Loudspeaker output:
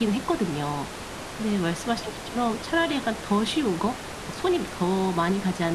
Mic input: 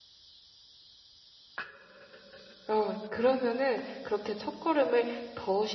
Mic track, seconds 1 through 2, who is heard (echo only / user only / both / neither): neither